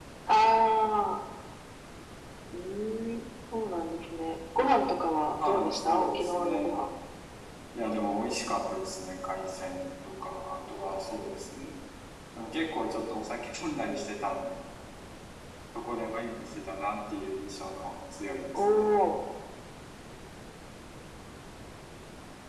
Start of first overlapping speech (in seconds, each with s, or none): 5.3 s